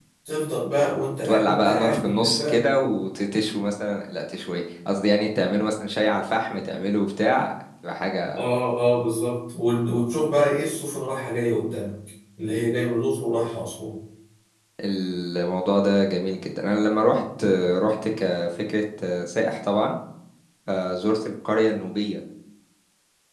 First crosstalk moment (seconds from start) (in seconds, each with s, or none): 1.2 s